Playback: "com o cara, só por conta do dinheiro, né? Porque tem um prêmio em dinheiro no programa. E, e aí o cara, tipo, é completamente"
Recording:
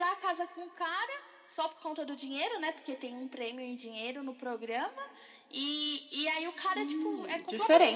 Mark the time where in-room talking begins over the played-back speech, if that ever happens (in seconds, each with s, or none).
6.8 s